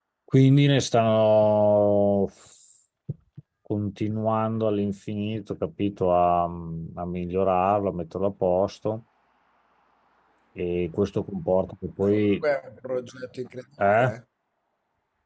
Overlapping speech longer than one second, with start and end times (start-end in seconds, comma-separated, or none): none